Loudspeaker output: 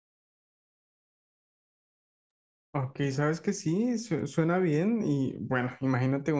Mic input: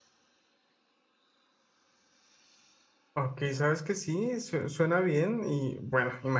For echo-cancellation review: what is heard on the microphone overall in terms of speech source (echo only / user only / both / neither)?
echo only